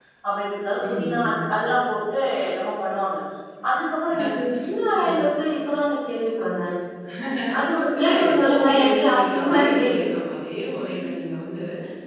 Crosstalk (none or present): present